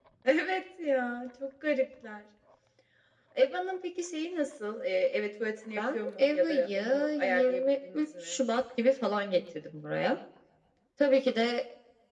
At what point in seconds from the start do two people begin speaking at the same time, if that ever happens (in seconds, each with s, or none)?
5.8 s